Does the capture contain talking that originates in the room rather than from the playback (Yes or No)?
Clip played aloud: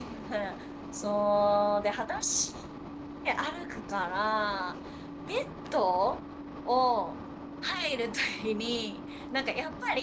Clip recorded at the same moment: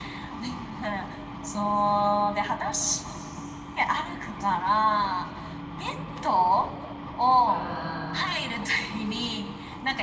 Yes